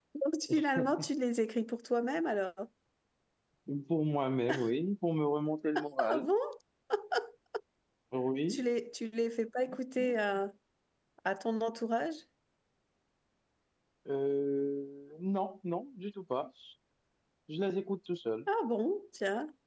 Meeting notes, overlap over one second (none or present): none